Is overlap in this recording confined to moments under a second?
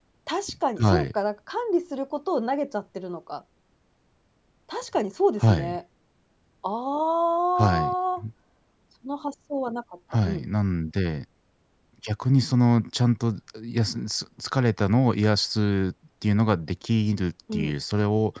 Yes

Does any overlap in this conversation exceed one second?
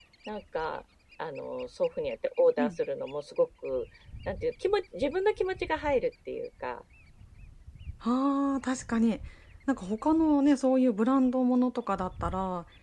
No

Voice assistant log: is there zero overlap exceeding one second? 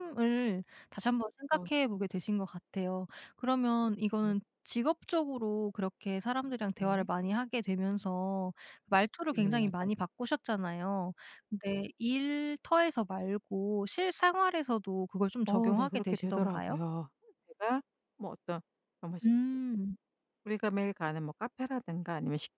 No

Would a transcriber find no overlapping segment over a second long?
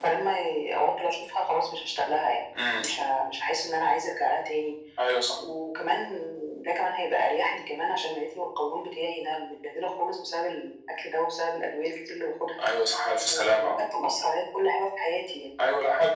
Yes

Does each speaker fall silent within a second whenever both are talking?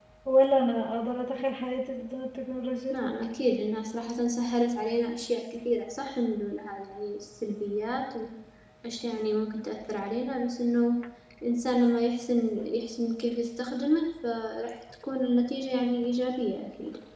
Yes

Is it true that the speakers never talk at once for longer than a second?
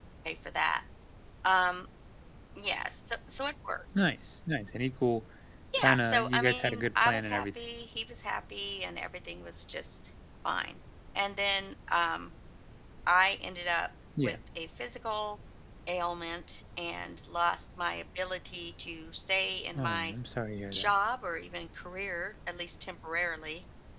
No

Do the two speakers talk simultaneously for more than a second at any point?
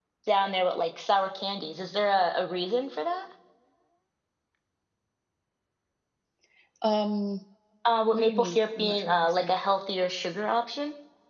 Yes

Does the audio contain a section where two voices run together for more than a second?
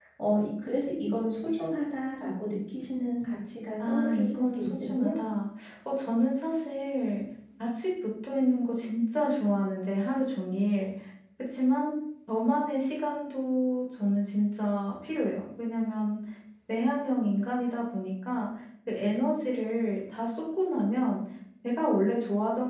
Yes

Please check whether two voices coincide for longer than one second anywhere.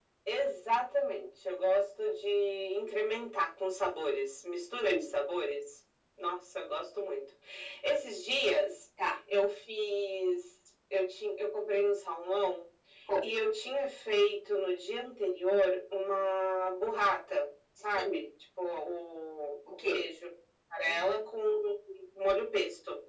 No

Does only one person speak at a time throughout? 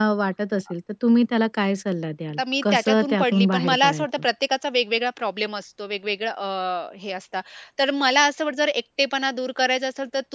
No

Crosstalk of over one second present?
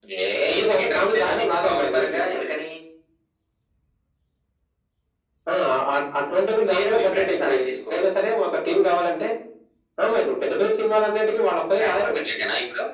Yes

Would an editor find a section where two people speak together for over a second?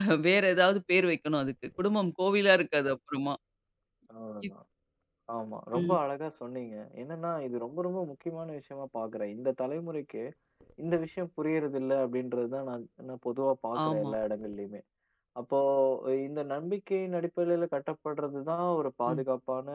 No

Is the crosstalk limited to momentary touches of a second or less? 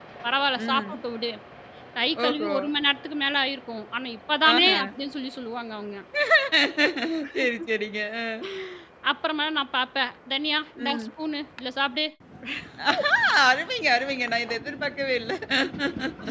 Yes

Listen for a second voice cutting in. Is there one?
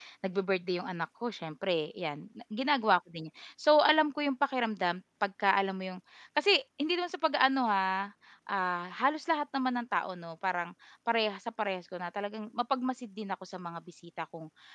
No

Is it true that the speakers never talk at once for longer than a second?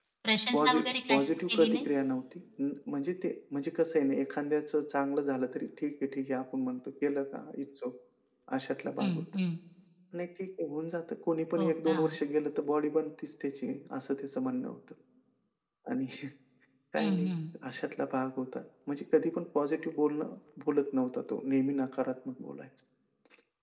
No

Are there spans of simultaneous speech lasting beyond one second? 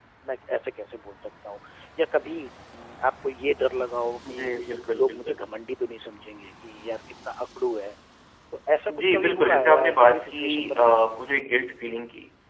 Yes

